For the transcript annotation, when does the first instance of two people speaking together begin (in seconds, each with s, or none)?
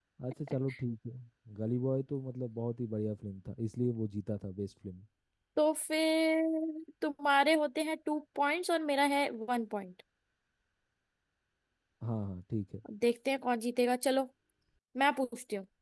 none